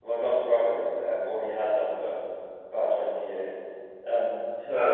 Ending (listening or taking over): taking over